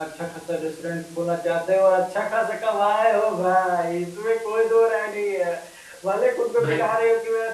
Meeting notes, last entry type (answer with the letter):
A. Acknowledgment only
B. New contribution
A